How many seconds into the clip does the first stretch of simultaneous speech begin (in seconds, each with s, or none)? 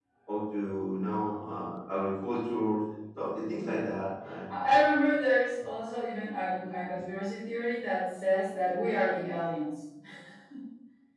none